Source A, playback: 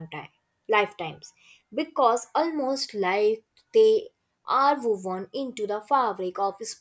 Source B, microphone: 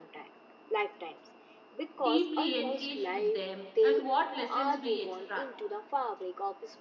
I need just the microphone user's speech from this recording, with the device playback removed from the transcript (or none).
deeply engage with them and what lessons we extract.